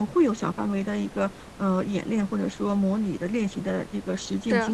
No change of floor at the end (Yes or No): Yes